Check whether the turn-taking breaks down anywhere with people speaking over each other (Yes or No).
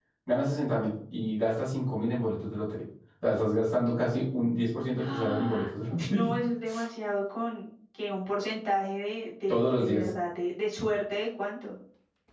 Yes